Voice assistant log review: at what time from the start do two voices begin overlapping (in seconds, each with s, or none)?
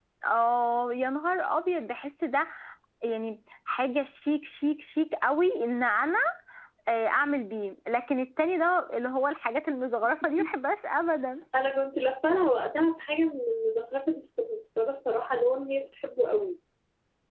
none